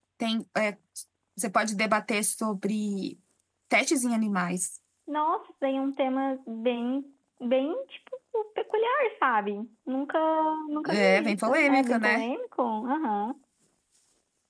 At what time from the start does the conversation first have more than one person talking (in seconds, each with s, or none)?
10.9 s